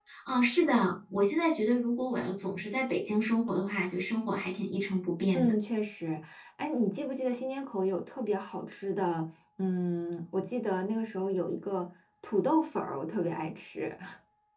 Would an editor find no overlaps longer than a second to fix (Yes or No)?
Yes